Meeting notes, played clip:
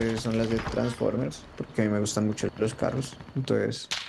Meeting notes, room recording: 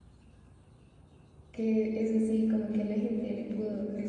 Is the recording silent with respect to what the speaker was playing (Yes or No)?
Yes